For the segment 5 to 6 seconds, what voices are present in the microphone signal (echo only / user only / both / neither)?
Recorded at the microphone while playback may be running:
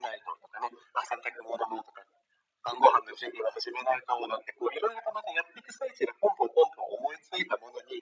echo only